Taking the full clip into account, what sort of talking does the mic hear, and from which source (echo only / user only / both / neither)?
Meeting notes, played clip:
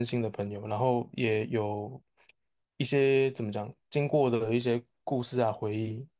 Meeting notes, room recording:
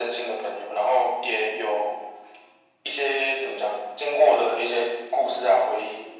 echo only